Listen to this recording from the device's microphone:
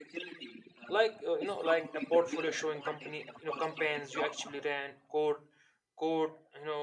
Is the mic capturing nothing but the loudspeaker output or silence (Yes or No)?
No